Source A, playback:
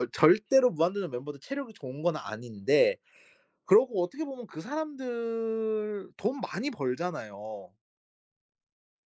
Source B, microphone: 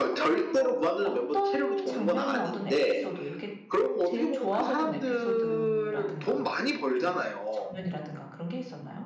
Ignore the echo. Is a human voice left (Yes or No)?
Yes